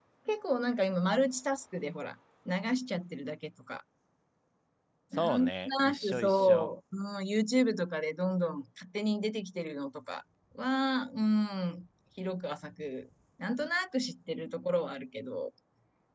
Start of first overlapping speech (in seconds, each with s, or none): 5.2 s